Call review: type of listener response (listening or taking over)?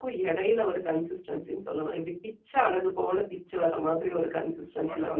taking over